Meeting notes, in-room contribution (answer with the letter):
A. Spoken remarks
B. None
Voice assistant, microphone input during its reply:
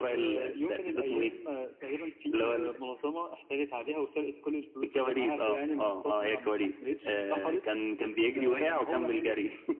B